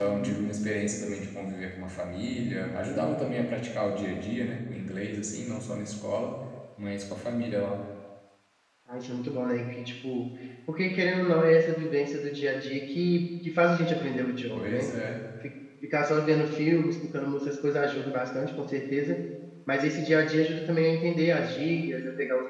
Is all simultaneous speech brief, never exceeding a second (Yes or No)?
Yes